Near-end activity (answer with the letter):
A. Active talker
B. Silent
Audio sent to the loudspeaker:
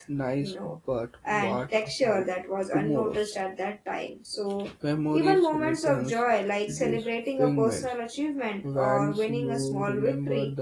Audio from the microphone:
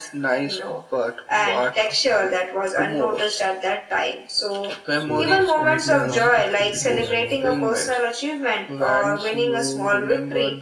A